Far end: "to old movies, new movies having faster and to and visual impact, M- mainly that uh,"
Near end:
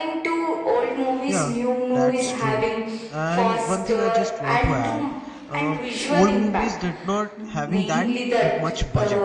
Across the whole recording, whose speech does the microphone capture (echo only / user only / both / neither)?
both